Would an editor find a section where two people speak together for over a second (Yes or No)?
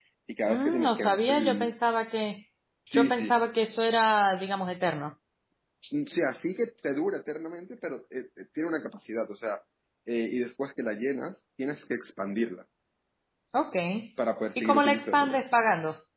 Yes